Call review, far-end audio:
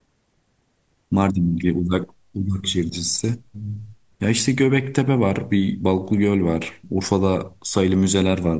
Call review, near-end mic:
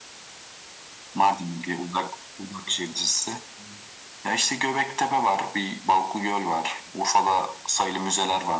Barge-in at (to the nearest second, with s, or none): none